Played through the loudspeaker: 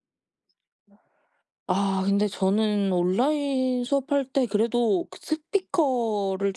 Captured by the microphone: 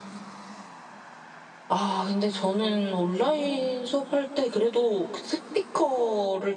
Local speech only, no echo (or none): none